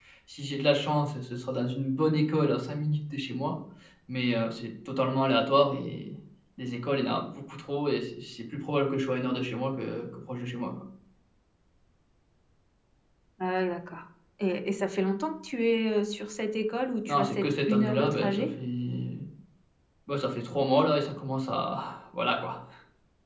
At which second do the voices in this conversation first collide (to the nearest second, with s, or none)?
17 s